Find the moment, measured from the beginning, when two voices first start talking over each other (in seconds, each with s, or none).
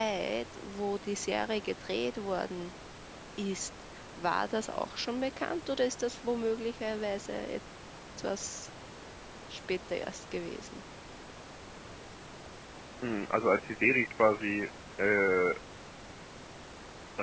none